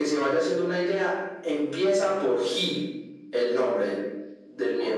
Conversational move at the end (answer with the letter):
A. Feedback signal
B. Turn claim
B